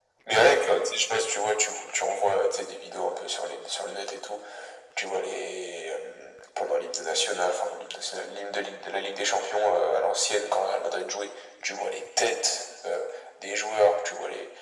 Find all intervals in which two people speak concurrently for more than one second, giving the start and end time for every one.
none

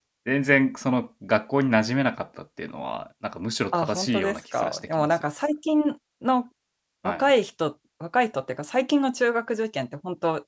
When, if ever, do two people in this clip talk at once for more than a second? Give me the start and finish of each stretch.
3.7-5.1

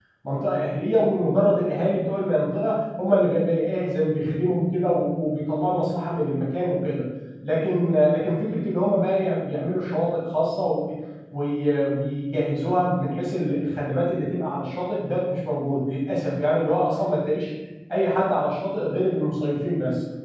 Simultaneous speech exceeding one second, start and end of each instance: none

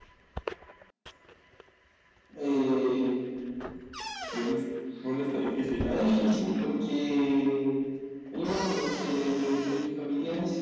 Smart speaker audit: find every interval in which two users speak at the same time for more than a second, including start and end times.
none

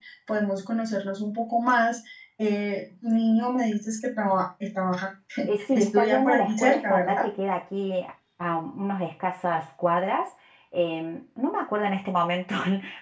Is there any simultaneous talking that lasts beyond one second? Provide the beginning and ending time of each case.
5.7-7.2

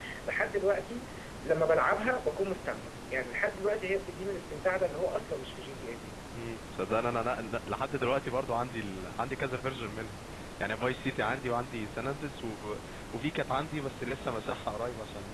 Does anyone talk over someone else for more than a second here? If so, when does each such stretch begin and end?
none

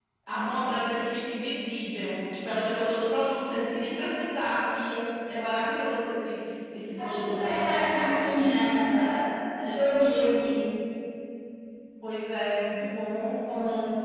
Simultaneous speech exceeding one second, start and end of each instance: 7.0-8.3

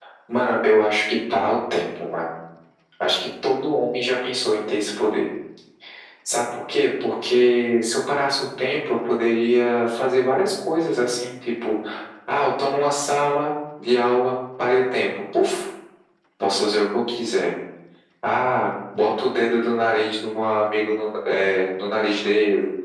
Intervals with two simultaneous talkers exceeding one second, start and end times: none

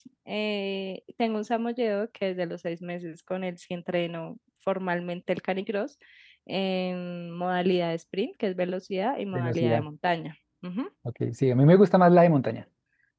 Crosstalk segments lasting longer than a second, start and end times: none

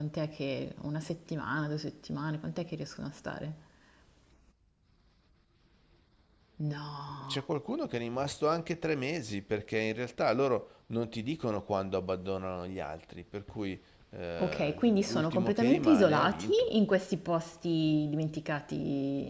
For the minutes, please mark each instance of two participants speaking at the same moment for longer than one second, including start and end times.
14.4-16.7

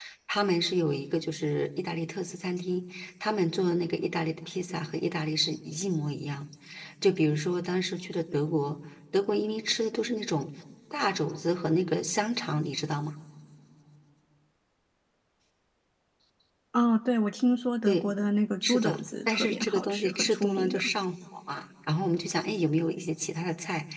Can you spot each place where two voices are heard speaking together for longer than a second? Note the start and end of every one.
18.6-20.8

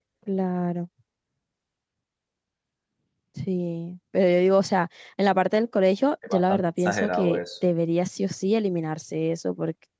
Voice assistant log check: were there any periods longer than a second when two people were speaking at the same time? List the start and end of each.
6.3-7.7

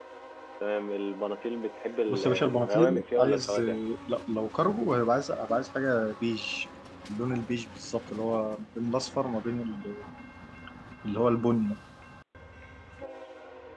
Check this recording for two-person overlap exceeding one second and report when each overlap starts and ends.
2.1-3.6

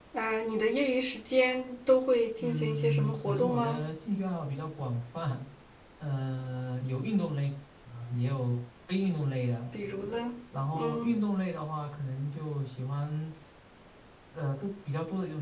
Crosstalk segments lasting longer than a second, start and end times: 2.4-3.8

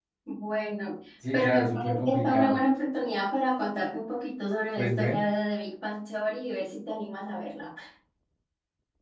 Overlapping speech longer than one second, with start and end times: 1.3-2.6

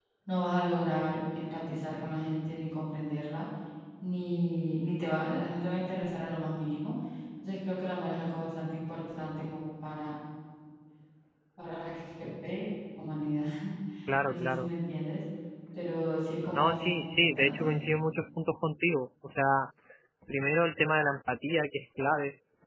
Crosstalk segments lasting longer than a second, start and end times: 16.6-17.8

